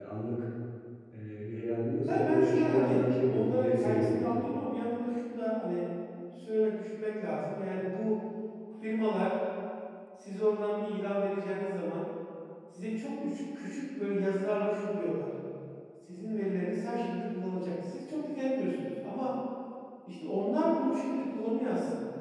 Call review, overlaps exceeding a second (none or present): present